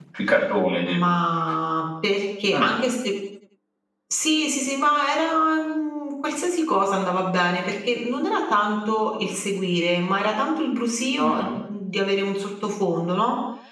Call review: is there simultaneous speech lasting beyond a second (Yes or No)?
No